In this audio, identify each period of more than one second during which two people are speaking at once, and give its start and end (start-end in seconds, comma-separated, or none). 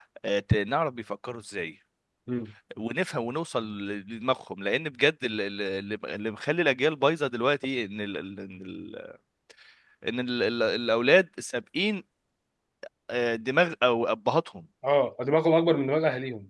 none